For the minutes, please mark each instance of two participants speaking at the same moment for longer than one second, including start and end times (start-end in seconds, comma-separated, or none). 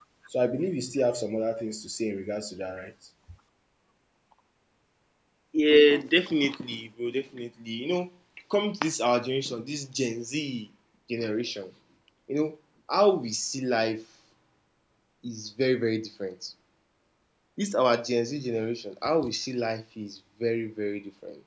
none